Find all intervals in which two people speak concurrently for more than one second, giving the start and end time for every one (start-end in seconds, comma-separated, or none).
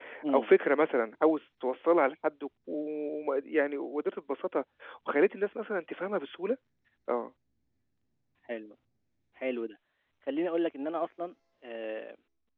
none